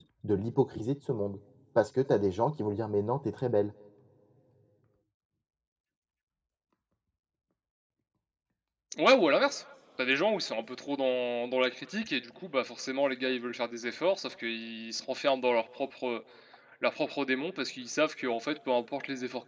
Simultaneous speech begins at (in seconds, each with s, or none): none